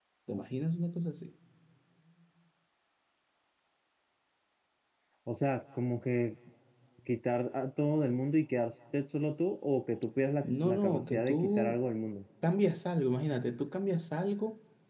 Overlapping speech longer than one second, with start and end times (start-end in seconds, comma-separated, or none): 10.4-11.8